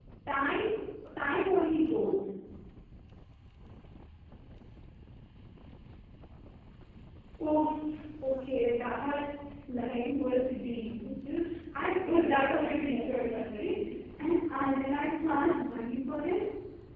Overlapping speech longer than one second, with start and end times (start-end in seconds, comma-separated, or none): 12.1-13.7